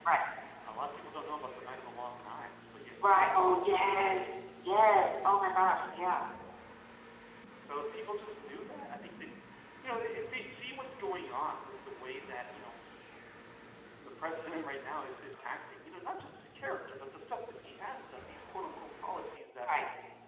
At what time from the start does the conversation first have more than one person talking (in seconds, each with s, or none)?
3.0 s